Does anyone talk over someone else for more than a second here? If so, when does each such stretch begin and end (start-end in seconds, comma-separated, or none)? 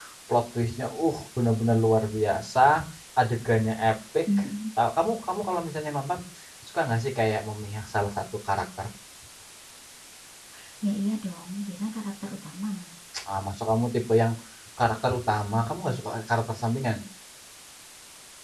none